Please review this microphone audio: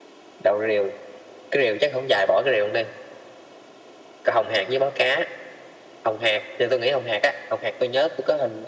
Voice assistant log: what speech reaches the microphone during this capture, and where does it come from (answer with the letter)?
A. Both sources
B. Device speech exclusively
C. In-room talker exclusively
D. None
B